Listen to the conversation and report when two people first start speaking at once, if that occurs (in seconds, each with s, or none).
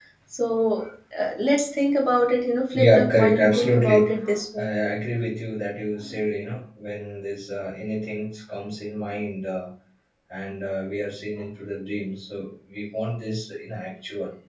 2.7 s